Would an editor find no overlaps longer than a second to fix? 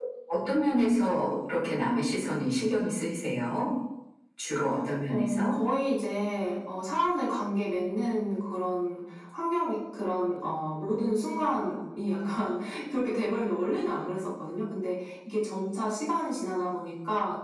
Yes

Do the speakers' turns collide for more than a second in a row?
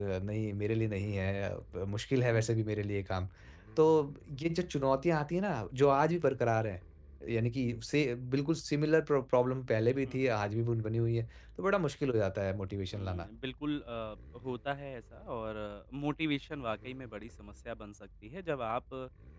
No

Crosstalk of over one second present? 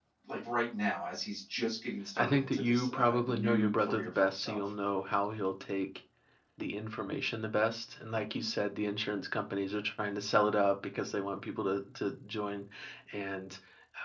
Yes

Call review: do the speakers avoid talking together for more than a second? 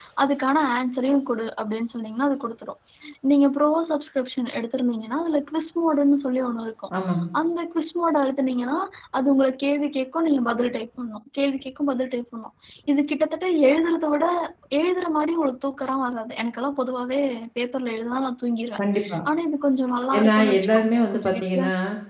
No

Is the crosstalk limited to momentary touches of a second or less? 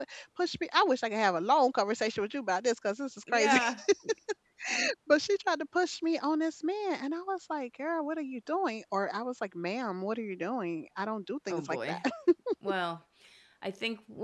Yes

